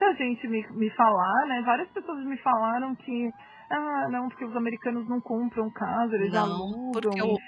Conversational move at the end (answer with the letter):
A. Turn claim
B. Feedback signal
A